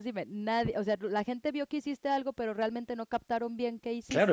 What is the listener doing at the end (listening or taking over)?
taking over